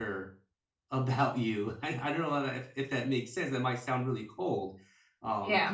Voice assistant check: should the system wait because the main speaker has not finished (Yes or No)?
Yes